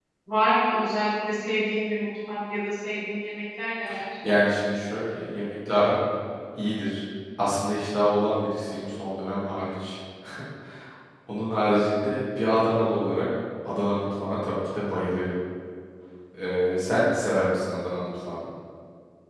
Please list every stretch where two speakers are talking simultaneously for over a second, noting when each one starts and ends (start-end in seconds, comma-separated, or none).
none